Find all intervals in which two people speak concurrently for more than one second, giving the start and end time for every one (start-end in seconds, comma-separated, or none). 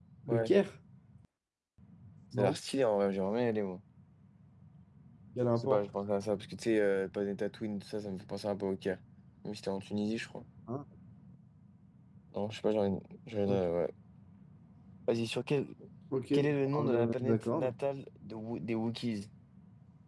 16.3-17.7